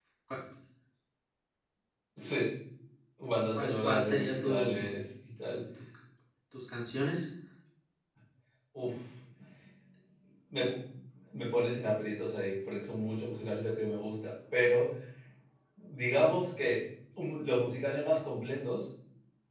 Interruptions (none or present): present